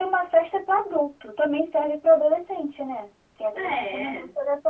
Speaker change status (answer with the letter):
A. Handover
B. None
B